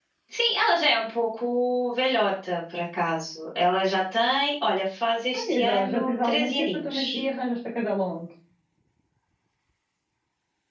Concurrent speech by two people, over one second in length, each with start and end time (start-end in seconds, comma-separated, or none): 5.3-7.2